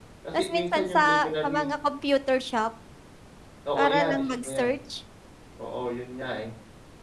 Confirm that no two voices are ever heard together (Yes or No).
No